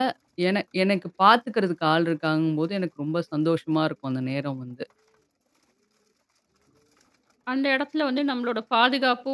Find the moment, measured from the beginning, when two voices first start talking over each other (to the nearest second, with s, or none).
none